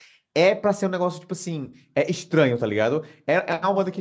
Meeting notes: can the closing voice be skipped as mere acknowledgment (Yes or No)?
Yes